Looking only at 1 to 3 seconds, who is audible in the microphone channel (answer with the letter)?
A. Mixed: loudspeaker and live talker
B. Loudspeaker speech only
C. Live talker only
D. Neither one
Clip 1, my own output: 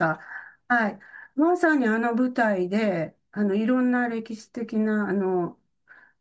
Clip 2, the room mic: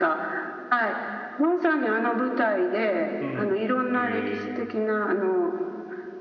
B